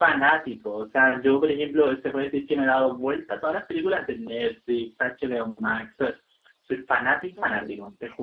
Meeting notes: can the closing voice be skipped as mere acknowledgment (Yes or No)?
No